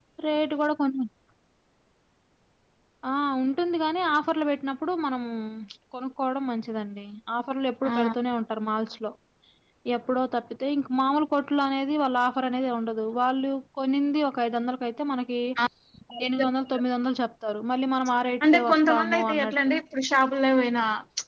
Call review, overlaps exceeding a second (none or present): present